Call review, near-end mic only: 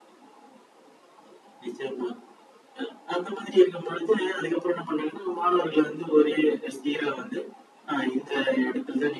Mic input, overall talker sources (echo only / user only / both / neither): echo only